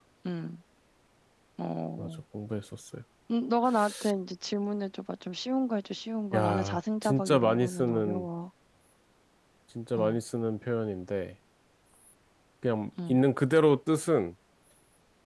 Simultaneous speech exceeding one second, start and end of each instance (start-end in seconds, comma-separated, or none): 6.3-8.3